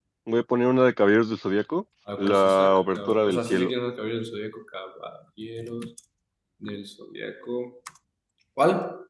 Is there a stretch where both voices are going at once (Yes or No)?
Yes